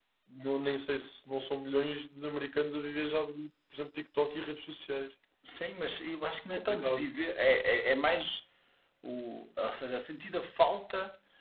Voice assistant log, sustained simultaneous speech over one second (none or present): none